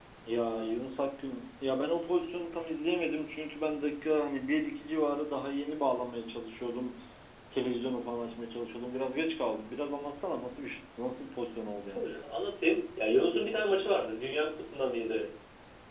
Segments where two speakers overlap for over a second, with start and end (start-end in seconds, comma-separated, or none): none